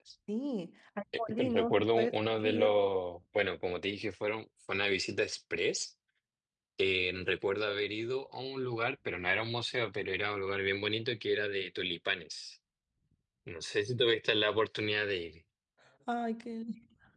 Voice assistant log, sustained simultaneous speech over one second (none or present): present